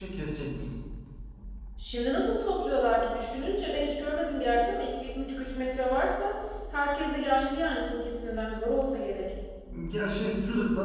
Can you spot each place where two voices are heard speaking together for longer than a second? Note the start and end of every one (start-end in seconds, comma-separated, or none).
none